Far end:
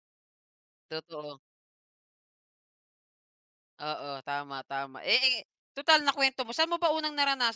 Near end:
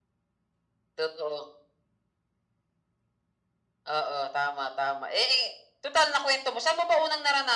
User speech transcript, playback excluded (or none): none